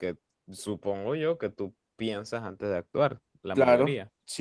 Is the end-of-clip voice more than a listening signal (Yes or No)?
Yes